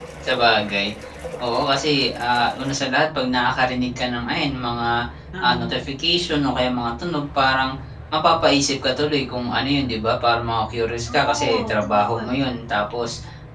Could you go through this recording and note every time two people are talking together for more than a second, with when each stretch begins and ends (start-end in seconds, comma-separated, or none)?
11.1-12.3